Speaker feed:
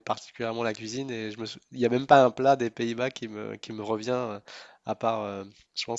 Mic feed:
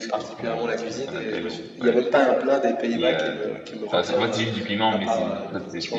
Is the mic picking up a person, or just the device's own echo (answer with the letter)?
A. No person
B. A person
B